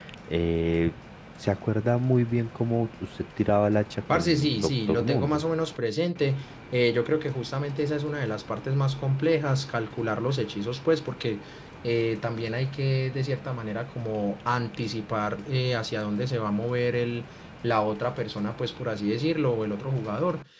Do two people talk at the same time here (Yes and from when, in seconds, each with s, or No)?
Yes, from 4.1 s